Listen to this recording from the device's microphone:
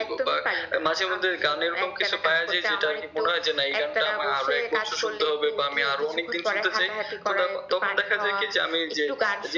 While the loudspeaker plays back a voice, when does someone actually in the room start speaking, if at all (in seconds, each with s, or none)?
none